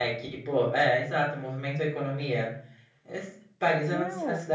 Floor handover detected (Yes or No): No